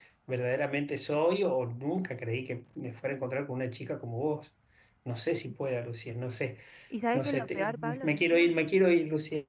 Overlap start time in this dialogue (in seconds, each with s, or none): 7.1 s